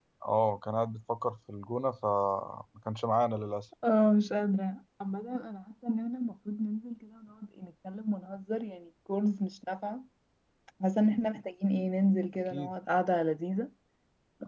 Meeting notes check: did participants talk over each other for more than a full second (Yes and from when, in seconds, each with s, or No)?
No